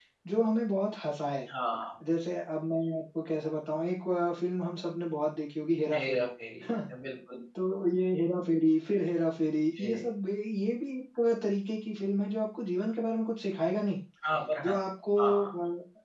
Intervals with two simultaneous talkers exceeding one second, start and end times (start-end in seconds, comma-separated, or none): none